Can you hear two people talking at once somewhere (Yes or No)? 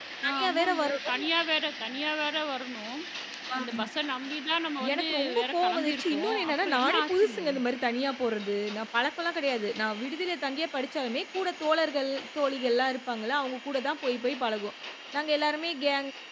Yes